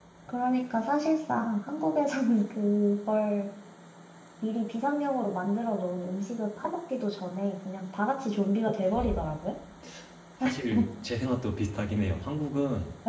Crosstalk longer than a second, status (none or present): none